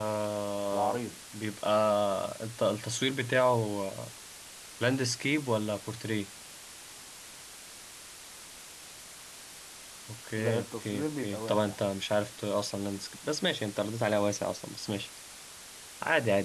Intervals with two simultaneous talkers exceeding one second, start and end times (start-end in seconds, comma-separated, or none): 10.4-11.8